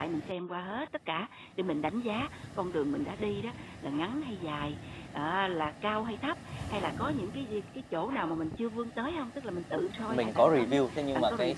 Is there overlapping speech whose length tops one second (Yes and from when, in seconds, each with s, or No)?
Yes, from 10.1 s